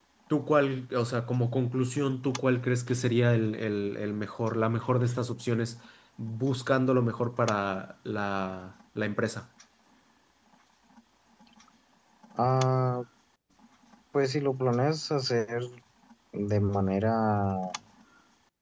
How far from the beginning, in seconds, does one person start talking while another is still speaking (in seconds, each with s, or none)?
none